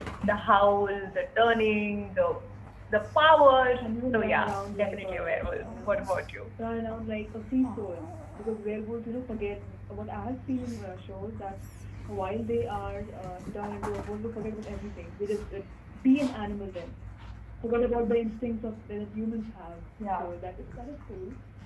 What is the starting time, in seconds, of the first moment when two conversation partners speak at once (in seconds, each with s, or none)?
3.8 s